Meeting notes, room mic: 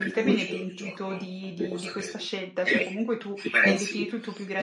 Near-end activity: present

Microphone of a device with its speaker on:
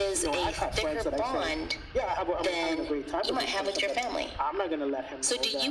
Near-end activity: none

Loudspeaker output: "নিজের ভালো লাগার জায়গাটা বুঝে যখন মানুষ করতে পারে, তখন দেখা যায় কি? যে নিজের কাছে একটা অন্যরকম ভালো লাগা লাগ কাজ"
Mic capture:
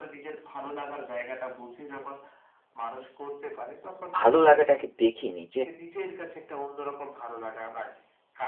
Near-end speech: present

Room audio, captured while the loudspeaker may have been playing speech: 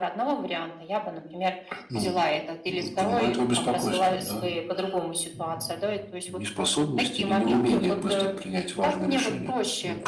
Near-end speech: none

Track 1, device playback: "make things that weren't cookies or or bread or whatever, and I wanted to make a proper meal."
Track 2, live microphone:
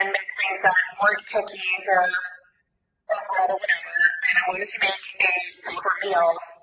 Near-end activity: none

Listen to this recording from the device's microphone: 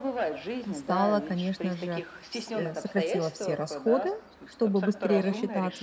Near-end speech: present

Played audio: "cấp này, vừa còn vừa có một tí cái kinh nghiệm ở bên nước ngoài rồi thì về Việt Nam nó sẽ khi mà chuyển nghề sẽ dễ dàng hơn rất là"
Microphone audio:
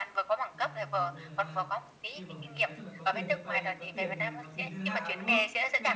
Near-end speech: present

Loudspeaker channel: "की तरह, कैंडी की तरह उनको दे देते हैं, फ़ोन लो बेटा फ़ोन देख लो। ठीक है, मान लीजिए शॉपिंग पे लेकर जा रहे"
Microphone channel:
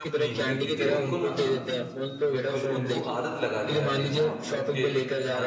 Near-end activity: present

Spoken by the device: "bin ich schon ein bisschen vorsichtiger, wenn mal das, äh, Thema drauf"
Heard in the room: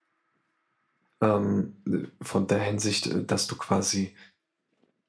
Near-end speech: present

